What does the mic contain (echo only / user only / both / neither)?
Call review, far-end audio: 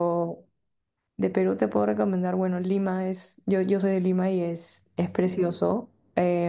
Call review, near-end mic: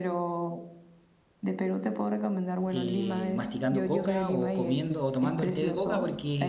both